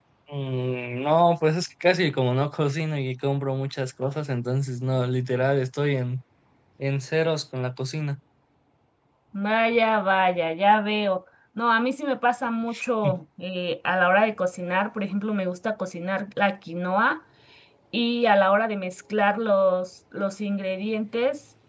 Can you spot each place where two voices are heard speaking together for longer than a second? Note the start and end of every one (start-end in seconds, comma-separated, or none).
none